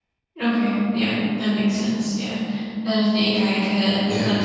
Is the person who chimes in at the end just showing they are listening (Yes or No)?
Yes